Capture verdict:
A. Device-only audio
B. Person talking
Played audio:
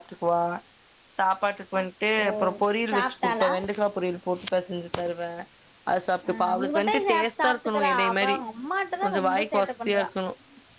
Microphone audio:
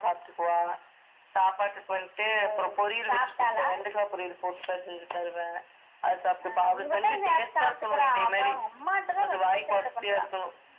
A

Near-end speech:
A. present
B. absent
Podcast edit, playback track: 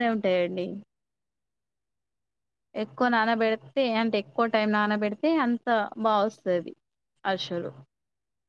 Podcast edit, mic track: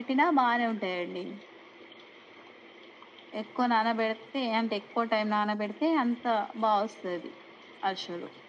B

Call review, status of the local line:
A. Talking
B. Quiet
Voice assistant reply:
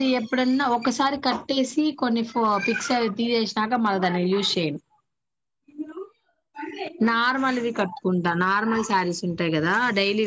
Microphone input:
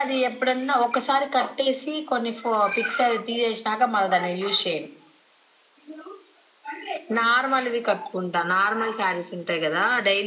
B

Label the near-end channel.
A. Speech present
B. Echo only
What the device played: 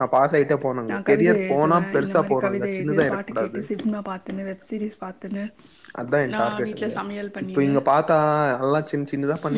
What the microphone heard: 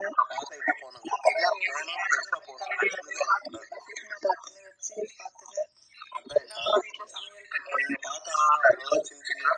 B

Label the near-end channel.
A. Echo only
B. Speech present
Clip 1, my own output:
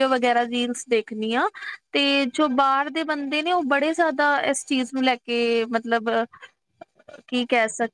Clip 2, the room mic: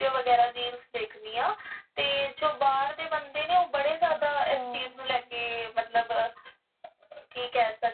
B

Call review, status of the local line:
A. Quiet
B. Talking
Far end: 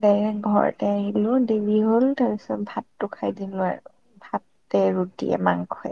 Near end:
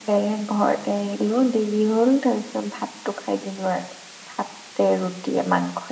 A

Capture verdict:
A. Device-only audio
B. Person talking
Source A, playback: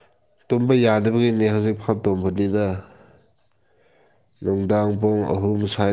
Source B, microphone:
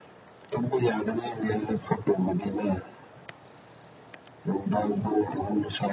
A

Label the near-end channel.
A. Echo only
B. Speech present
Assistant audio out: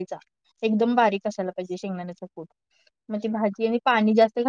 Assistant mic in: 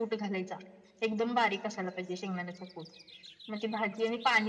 A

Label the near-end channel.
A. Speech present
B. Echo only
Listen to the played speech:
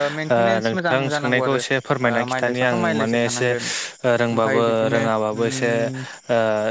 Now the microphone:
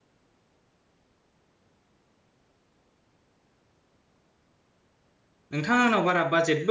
A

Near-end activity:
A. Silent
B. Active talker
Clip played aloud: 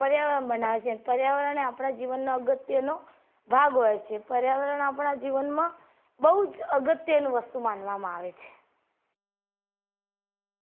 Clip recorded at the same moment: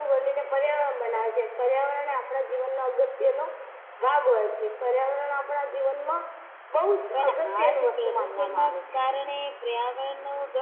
B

